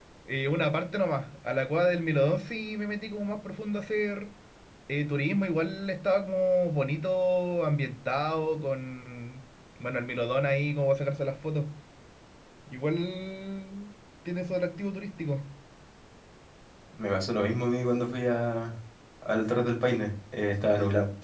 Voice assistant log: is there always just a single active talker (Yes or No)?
Yes